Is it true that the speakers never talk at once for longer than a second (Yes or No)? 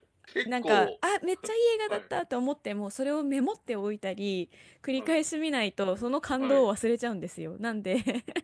Yes